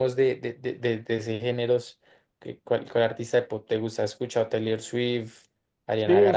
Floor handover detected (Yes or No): Yes